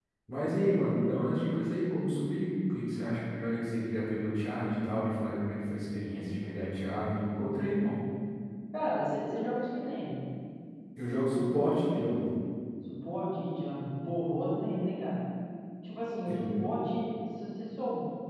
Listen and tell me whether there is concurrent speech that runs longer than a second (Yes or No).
No